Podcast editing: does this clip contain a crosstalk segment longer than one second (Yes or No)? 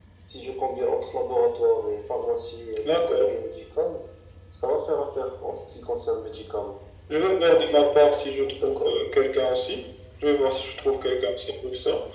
No